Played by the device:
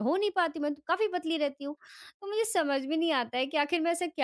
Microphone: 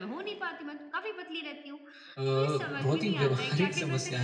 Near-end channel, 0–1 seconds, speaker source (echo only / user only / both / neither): echo only